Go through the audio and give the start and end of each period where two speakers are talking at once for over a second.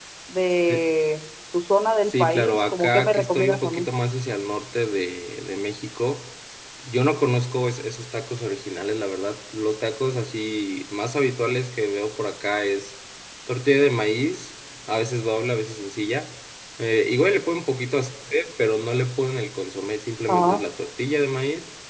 2.0-3.9

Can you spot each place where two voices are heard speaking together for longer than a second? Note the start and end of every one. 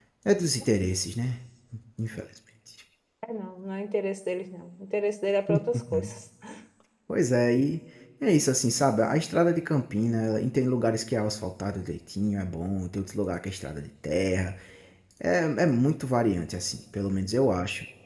none

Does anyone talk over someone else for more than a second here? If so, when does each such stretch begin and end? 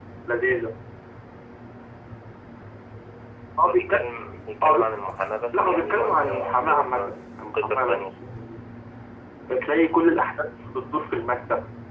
5.5-8.1

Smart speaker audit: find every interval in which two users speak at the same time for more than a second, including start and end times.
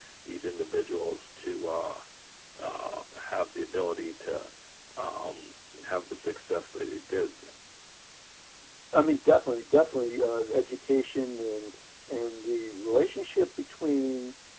none

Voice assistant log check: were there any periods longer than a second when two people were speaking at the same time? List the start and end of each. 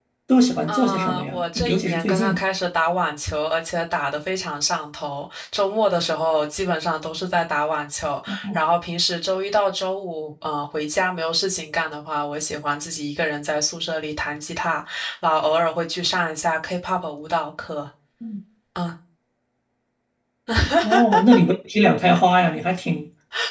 0.7-2.4

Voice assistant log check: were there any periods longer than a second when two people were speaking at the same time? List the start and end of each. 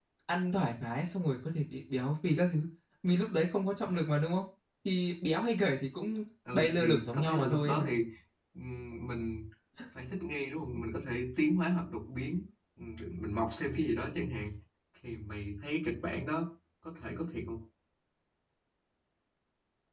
6.5-7.9

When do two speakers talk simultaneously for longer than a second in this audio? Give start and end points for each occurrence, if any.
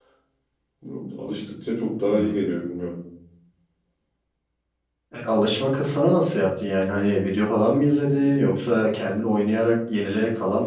none

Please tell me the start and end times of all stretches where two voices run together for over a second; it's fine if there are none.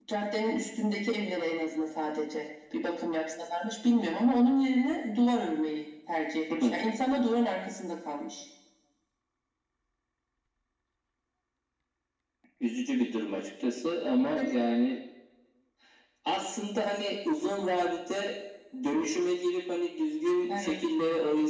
none

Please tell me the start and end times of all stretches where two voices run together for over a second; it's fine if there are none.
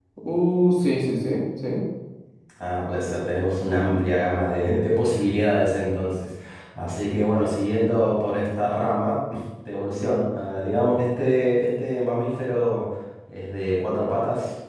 none

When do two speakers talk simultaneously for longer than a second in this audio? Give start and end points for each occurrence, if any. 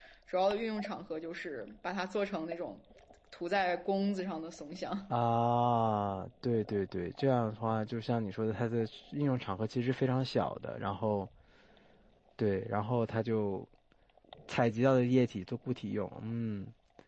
none

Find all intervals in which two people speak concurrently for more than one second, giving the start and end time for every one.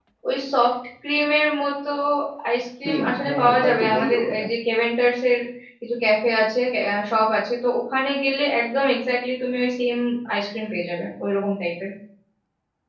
2.8-4.4

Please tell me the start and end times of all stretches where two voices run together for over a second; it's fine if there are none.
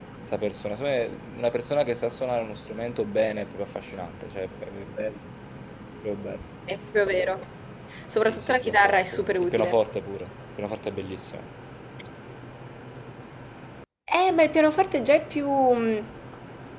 8.2-9.8

